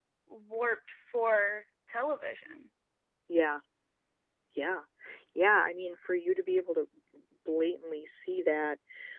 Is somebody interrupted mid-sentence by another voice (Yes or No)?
No